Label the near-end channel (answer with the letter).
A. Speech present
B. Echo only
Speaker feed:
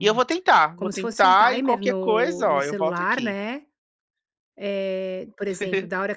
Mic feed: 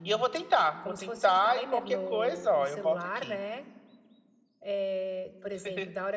B